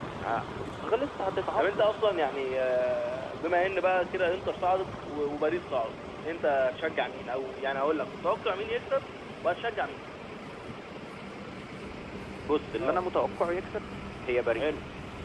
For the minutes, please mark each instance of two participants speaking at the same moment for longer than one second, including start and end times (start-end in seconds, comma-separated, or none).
none